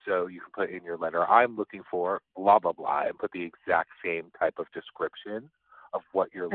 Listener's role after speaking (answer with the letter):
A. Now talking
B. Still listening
A